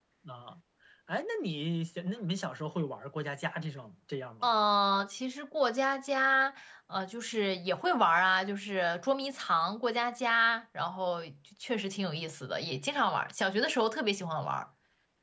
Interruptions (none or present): none